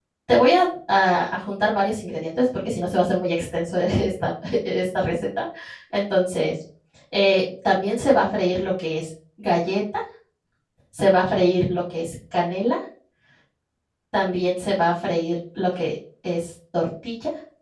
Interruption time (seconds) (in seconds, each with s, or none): none